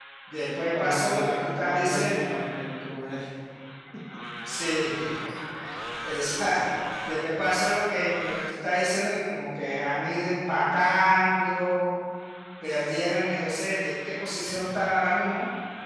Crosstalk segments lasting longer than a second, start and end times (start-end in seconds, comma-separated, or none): 0.8-2.2